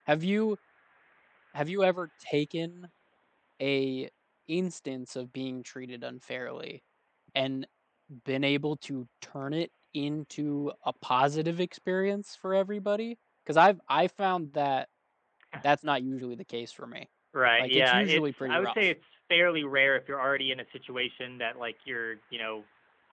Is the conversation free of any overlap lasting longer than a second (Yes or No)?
No